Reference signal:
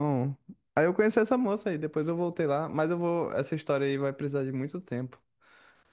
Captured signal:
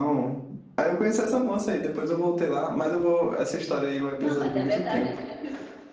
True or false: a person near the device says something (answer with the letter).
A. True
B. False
A